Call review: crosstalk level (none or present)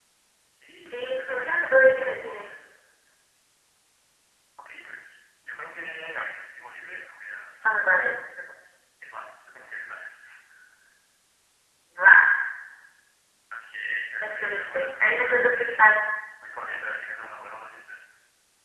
present